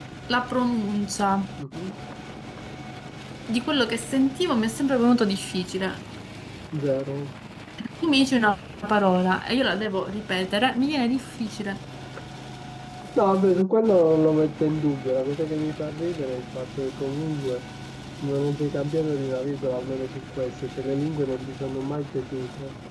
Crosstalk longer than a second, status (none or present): none